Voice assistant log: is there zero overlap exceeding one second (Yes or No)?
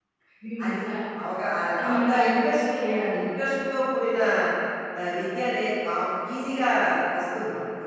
No